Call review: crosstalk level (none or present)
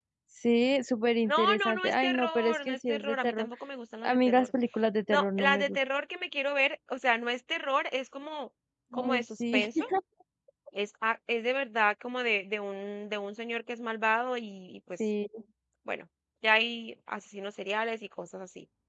present